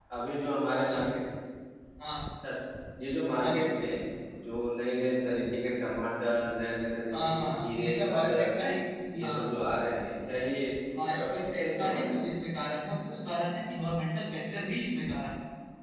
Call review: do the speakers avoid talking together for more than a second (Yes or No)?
No